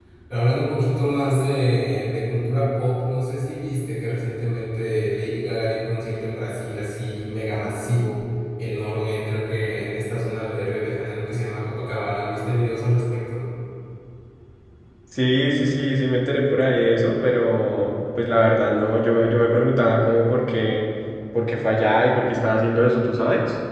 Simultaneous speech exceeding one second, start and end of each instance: none

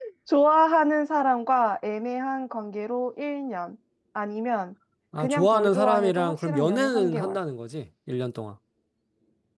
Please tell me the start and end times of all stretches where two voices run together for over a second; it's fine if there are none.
5.2-7.4

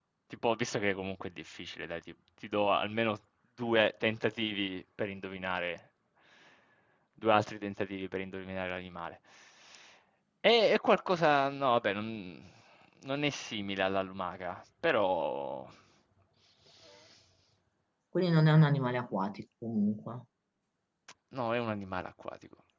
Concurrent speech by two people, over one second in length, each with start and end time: none

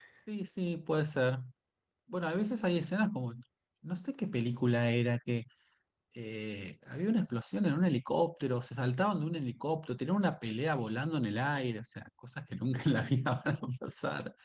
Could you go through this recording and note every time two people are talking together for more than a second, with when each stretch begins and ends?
none

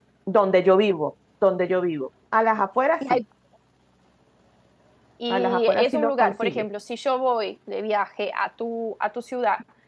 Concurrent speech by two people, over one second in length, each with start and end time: 5.3-6.7

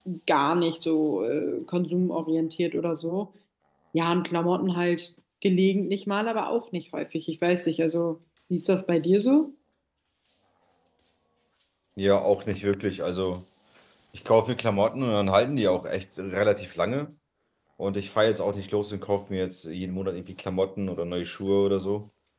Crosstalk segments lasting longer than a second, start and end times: none

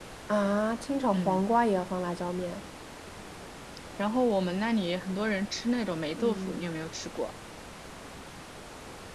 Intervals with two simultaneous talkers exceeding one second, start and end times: none

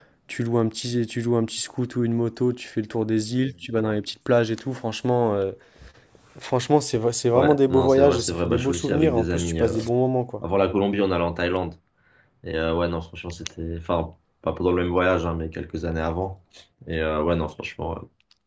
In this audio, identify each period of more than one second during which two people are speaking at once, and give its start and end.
7.3-9.7

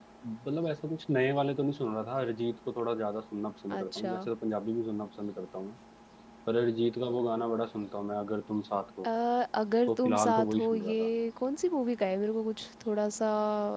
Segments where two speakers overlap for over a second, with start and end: 9.9-11.1

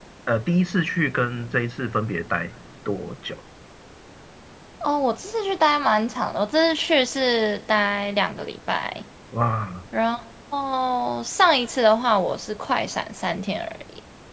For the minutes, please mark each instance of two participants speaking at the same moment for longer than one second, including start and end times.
none

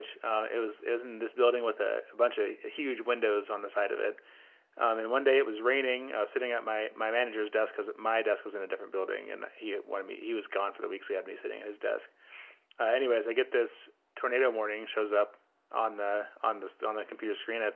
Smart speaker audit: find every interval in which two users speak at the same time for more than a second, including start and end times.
none

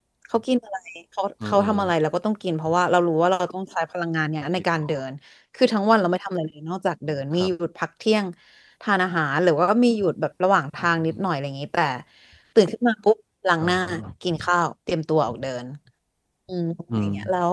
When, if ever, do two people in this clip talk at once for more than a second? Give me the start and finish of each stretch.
none

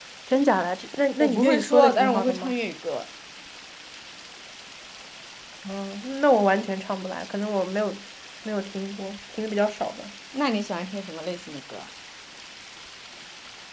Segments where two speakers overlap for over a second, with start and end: 1.2-2.5

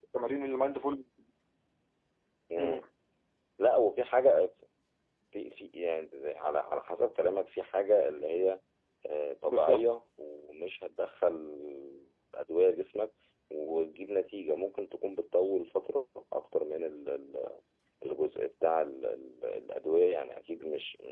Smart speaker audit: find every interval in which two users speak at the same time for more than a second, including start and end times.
none

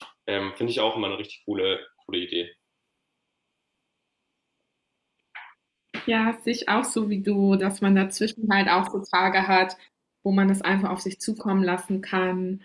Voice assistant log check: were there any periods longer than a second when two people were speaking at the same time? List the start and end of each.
none

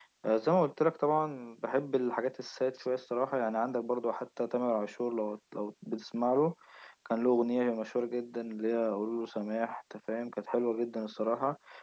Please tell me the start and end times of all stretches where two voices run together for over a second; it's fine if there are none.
none

